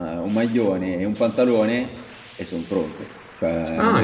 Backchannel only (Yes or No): No